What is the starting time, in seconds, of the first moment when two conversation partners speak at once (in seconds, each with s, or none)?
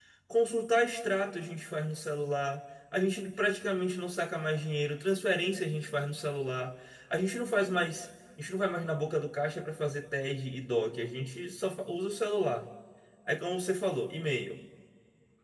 none